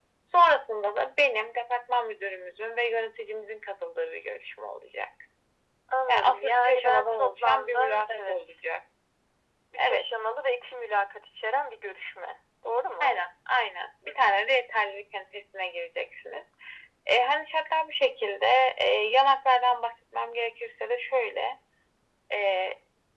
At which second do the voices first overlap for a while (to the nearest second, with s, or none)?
6 s